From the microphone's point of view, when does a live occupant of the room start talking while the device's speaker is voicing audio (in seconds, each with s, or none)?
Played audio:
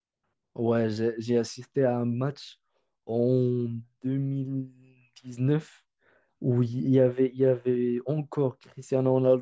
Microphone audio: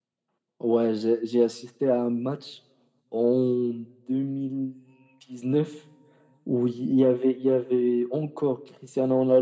none